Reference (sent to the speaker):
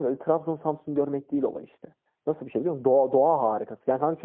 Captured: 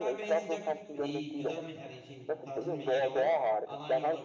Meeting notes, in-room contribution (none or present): present